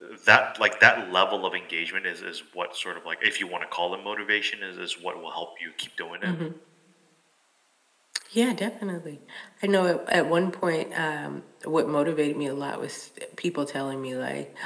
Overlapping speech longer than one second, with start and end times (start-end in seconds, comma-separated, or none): none